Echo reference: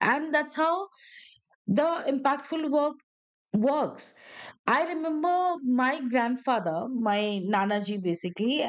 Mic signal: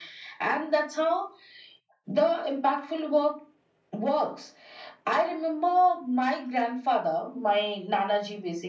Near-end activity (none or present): none